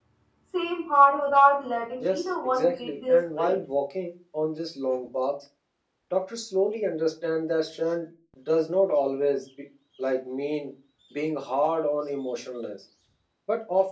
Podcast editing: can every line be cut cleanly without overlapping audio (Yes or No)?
No